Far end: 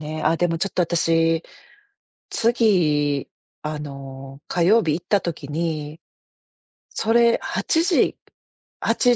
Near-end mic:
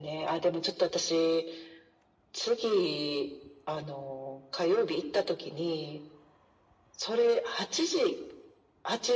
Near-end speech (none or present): none